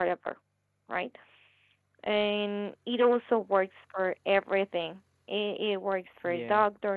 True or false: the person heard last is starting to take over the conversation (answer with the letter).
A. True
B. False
B